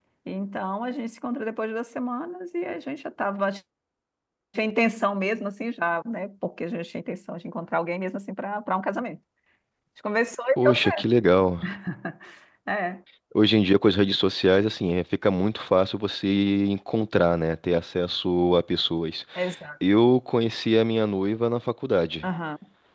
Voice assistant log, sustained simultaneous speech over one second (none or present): none